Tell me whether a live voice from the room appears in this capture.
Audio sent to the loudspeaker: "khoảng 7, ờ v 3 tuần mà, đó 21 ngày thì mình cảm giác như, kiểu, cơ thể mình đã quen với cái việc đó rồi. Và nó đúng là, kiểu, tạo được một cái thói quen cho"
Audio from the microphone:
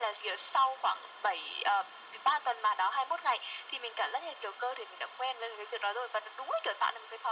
No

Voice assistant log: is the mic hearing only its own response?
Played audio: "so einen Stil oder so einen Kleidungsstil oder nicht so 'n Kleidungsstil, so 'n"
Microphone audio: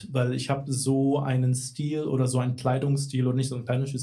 Yes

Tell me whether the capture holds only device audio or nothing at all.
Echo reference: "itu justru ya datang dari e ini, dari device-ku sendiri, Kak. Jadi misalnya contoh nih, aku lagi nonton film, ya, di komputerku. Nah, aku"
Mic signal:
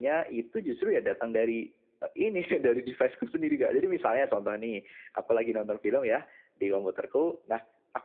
Yes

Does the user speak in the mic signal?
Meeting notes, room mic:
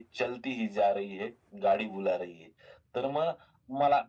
No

